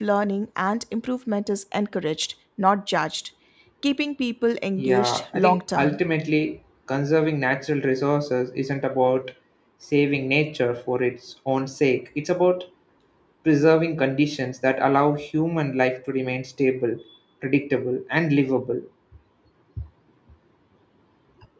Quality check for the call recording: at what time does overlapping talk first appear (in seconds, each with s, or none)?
4.8 s